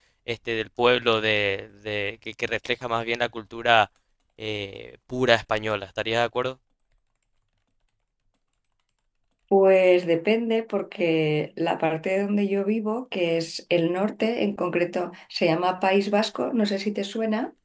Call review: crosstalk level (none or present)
none